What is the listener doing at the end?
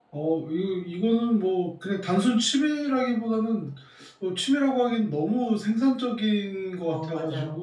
taking over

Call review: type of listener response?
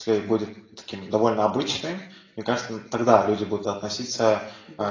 listening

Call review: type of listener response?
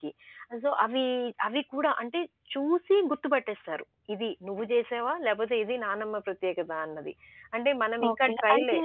taking over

